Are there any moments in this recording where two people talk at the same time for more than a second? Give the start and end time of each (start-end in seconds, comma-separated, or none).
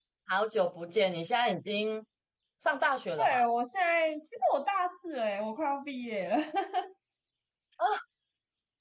none